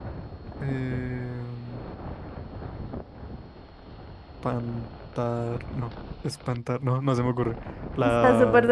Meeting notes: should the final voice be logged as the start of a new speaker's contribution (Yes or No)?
Yes